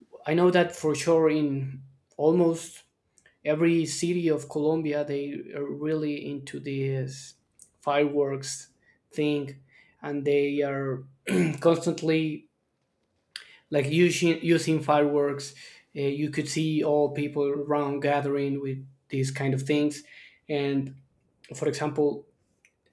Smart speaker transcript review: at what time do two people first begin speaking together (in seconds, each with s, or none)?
none